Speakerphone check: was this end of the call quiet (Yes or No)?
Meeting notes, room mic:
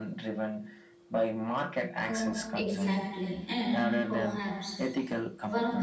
No